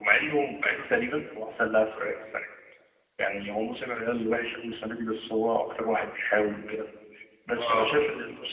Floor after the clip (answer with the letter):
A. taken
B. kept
B